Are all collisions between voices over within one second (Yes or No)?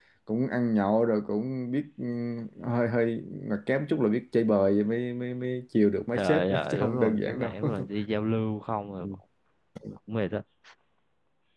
No